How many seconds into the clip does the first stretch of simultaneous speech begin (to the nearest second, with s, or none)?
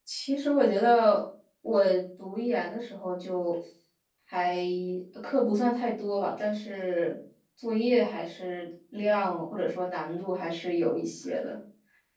none